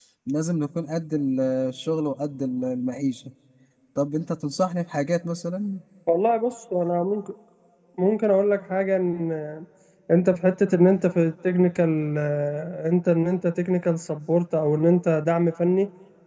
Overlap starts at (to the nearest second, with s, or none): none